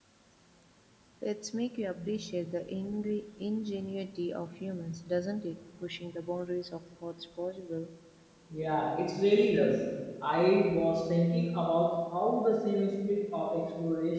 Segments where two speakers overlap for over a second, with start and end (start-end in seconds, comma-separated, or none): none